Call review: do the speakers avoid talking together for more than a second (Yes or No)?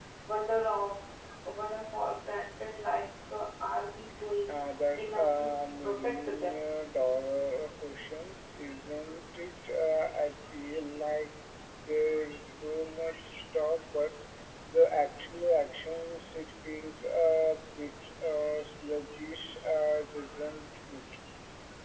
No